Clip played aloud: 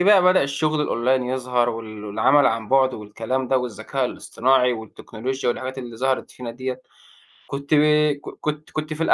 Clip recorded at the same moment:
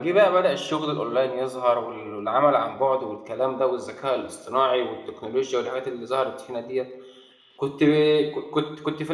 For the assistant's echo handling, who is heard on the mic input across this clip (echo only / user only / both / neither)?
echo only